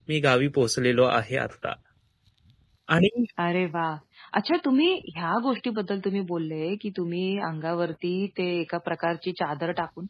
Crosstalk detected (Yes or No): No